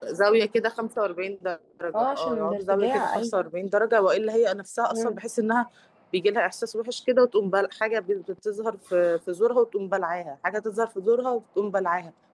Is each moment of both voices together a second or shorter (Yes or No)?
No